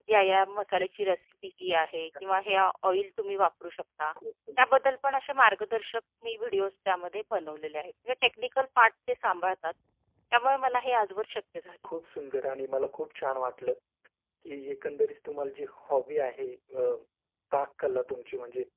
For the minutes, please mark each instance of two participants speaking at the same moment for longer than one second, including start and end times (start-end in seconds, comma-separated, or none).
none